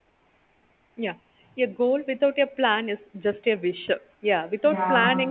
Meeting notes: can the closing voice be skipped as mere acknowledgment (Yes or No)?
Yes